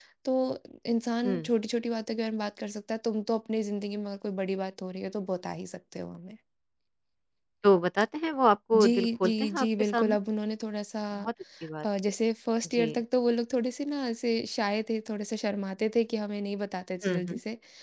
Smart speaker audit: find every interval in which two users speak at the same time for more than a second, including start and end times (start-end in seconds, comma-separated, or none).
8.7-10.2